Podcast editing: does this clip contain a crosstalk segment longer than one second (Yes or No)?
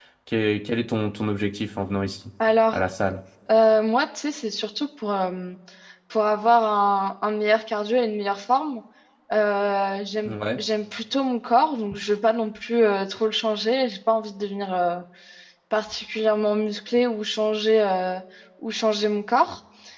No